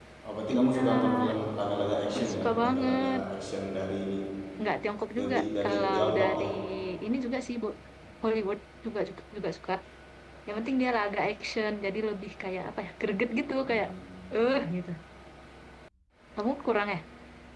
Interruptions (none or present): present